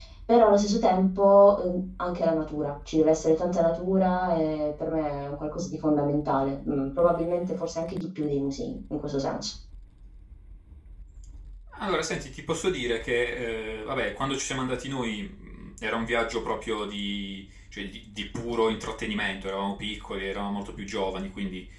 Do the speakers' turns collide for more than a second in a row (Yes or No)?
No